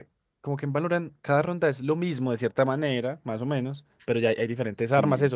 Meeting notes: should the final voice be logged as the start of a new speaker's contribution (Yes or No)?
No